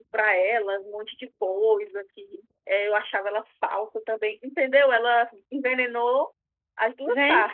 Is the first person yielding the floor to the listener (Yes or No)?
Yes